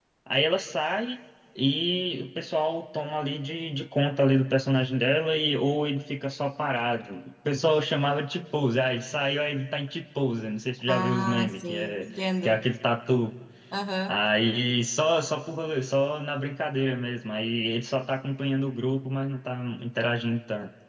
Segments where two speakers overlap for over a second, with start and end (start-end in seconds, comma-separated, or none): 10.9-12.6